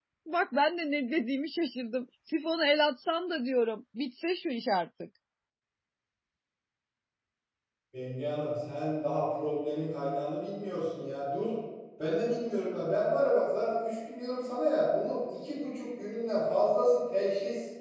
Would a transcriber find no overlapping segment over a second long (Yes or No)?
Yes